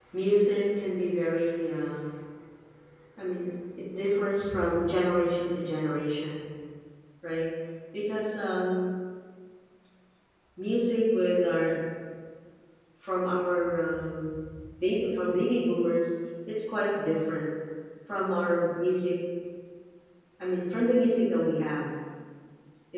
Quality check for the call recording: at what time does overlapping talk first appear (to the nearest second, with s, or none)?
none